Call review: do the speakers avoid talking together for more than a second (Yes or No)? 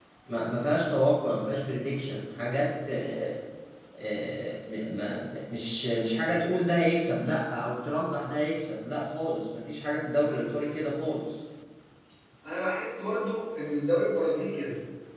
Yes